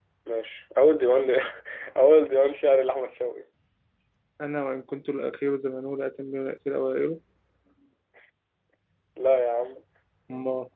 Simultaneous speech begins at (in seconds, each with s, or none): none